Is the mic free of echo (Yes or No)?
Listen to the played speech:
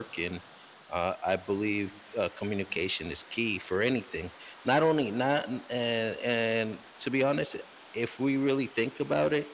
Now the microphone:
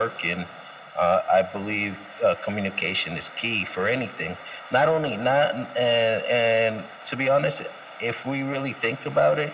No